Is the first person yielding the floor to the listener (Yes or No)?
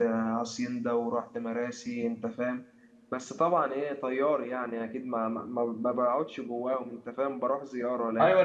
Yes